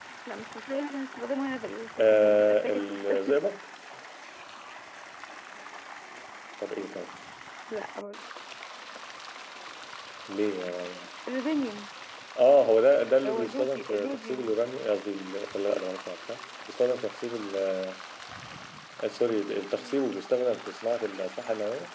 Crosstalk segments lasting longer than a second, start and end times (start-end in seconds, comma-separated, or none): 2.0-3.4, 13.2-14.5